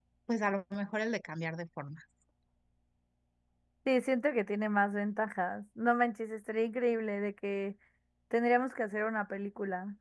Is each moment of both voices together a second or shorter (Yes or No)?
Yes